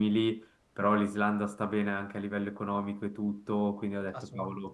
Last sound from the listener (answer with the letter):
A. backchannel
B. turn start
A